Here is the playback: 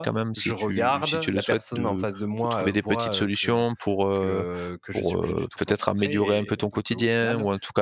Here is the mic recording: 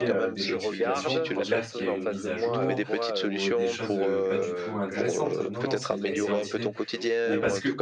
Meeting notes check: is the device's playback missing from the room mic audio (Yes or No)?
No